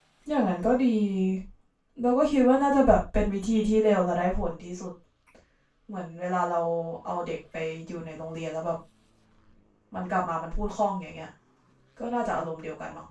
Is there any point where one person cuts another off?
No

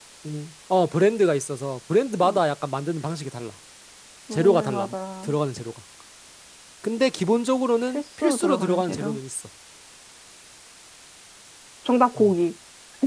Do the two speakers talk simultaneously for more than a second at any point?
Yes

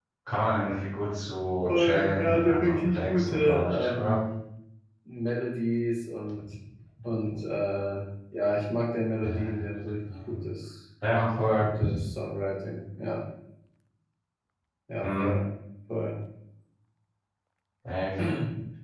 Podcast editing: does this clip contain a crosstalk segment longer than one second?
Yes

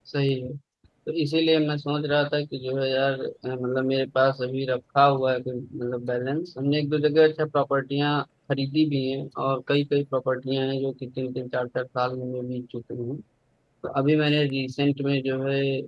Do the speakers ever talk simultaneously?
No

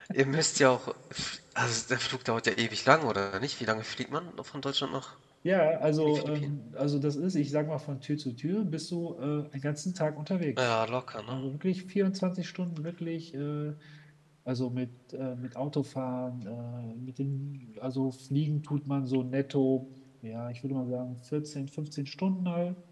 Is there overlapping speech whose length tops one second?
No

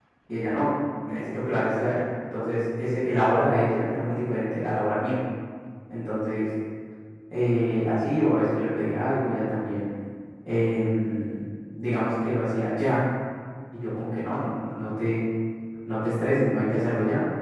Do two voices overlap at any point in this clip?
No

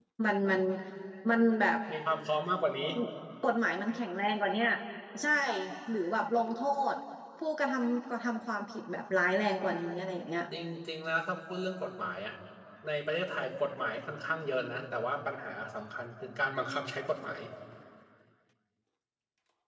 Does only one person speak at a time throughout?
Yes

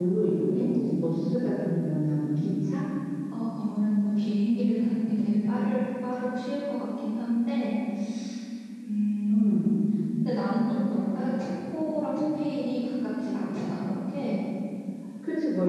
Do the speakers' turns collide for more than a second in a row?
No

